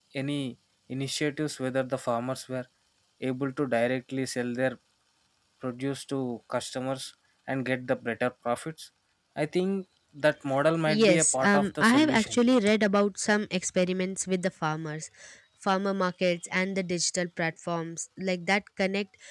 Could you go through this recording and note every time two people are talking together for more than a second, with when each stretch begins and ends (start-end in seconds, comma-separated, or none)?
10.9-12.4